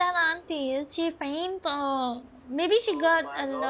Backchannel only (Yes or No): No